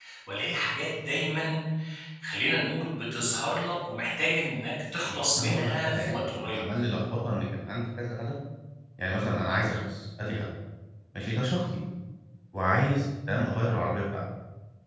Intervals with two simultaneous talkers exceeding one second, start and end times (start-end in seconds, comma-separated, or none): 5.1-6.6